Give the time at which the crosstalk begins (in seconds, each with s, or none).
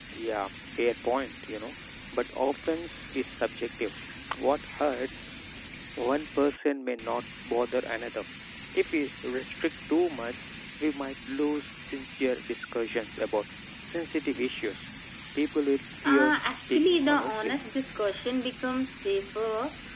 16.1 s